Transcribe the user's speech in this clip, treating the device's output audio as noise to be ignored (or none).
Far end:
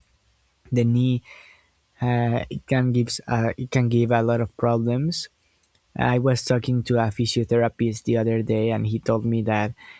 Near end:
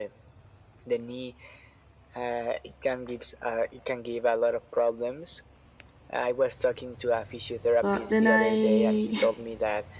But then I,